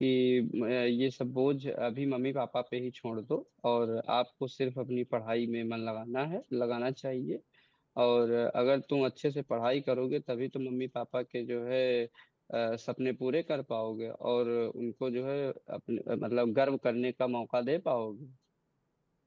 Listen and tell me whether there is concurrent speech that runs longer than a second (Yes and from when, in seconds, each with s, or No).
No